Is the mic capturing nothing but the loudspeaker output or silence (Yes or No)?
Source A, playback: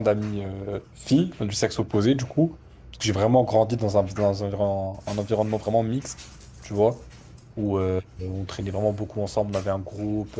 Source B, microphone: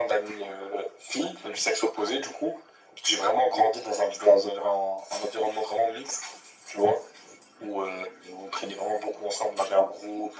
Yes